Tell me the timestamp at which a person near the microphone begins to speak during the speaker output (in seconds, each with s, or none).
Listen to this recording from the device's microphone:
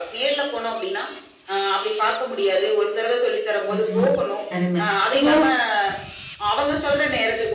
3.8 s